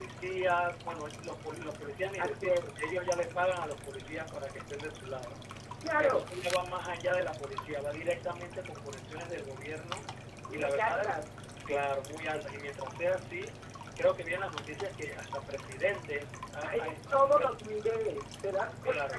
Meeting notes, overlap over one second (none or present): present